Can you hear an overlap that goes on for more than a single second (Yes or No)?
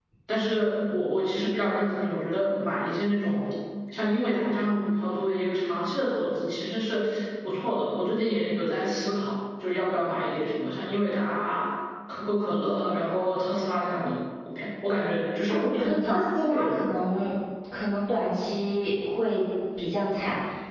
Yes